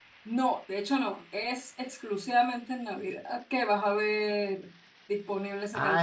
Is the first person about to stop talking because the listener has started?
Yes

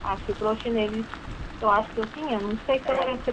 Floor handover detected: No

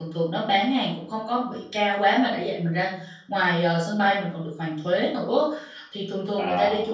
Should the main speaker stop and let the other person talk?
No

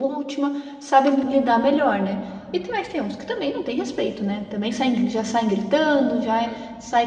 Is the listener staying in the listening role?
Yes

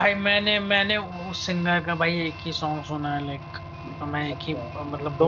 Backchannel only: No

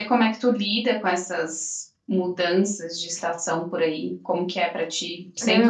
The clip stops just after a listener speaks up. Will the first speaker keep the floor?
No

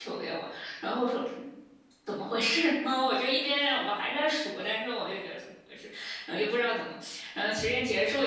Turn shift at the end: No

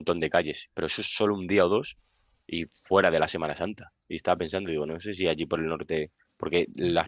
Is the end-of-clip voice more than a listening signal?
No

